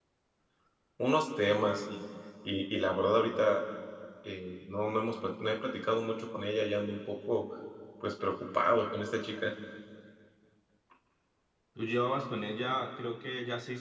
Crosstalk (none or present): none